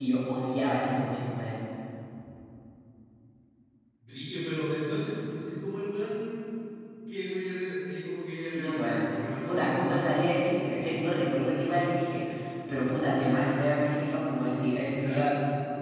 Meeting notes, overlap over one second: present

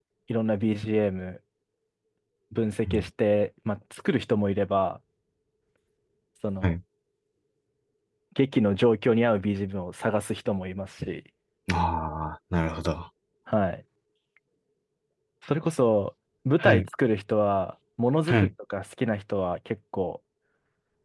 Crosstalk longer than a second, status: none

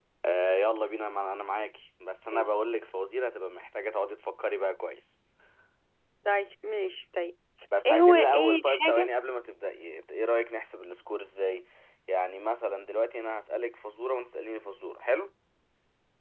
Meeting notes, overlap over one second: present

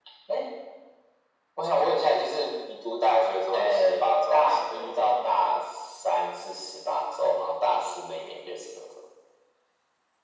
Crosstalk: present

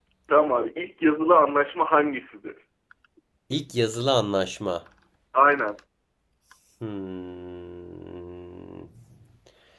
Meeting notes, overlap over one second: none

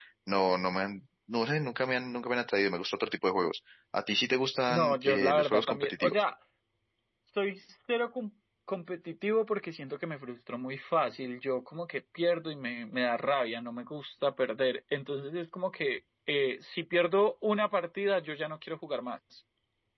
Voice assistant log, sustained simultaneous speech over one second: present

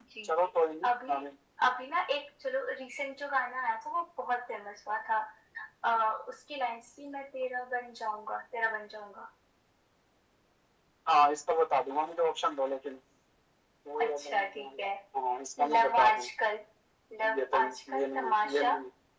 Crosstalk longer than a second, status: present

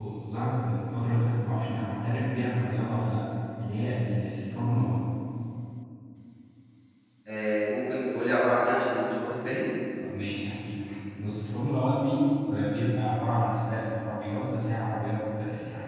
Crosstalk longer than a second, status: none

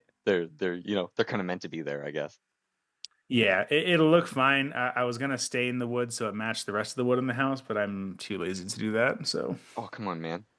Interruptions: none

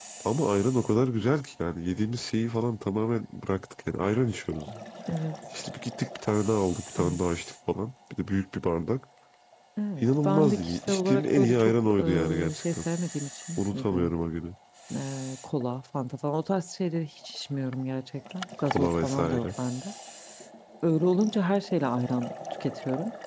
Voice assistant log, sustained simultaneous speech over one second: present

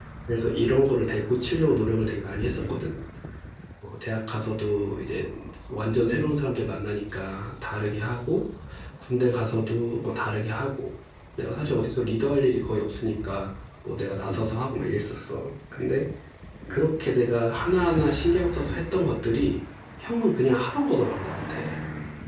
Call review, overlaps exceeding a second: none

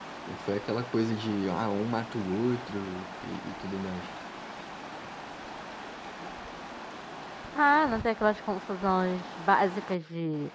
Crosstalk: none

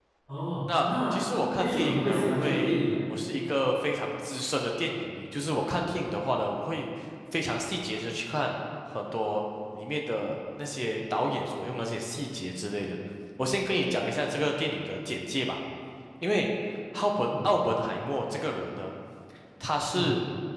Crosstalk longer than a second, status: present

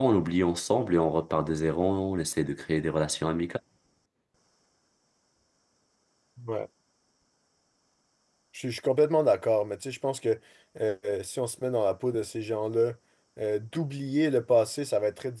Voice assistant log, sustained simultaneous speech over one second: none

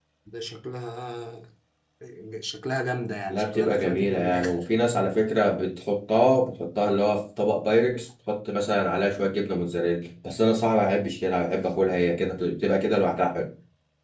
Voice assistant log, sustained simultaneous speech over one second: present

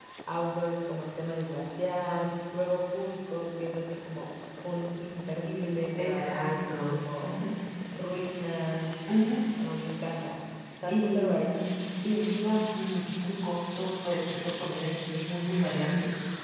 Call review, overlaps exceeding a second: present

